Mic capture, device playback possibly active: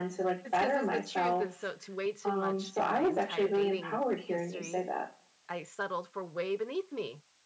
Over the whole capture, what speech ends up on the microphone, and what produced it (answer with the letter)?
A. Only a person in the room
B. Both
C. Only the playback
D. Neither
B